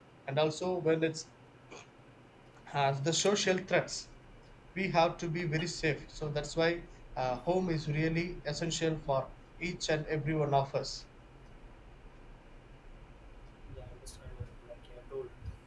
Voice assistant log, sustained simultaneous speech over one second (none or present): none